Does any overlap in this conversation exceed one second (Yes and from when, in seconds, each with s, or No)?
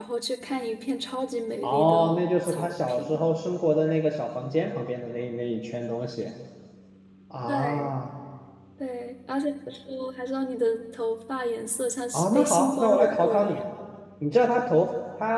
Yes, from 1.6 s